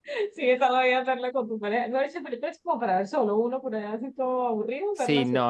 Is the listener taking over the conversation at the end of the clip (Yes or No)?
Yes